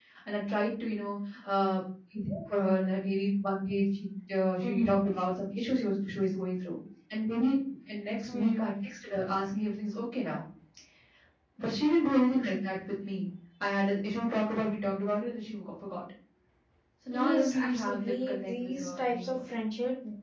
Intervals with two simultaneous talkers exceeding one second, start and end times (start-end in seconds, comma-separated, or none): 17.1-19.4